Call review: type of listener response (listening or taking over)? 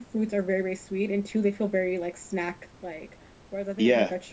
listening